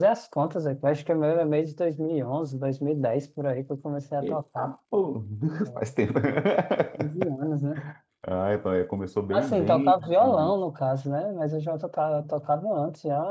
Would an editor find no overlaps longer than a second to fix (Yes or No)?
No